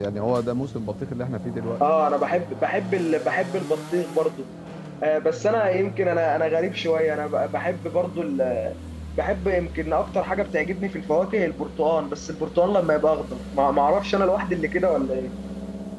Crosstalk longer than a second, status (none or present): none